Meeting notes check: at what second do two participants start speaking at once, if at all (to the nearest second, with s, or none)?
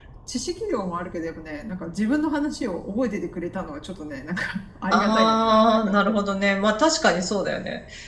5 s